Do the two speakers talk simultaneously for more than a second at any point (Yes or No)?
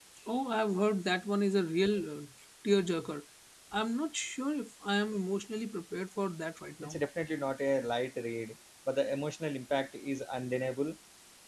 No